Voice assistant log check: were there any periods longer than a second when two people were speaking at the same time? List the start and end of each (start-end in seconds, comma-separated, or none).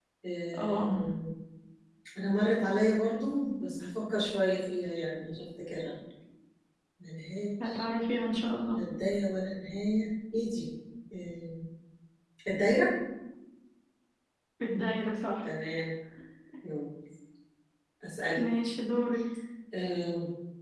none